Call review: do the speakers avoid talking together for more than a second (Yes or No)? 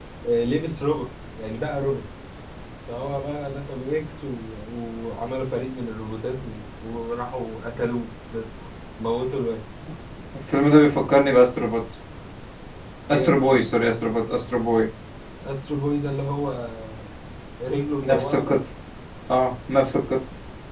Yes